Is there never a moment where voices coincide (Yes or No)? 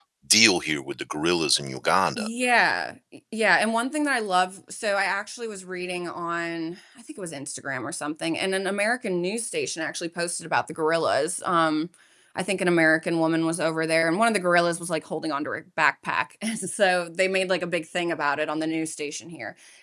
Yes